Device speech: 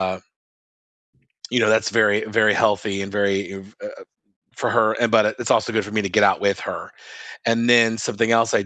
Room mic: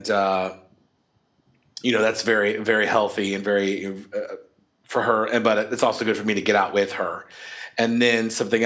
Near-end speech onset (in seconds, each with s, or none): none